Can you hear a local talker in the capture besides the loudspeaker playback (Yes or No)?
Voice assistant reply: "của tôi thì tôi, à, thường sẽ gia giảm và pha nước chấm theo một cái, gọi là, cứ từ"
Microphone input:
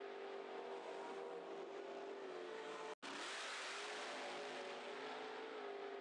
No